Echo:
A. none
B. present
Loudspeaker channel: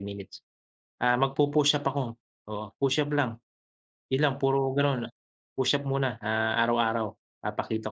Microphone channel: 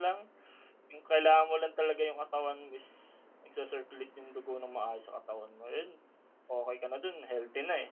A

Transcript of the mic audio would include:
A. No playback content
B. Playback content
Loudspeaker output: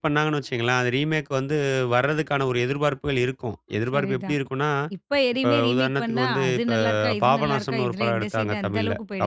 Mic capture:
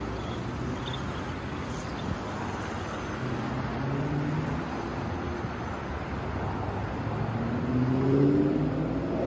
A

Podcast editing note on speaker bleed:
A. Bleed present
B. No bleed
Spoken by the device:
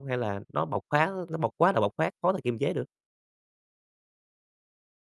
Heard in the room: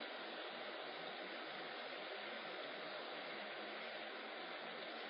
B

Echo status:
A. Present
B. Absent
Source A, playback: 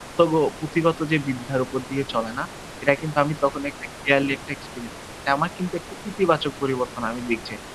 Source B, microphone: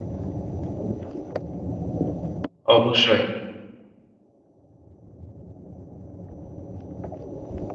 B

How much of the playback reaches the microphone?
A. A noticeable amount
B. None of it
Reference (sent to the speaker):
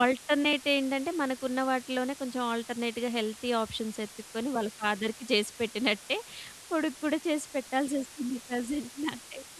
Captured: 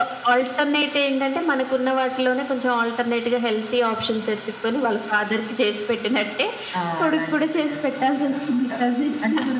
A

